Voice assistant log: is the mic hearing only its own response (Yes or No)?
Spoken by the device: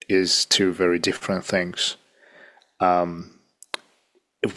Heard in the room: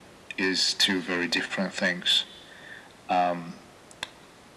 Yes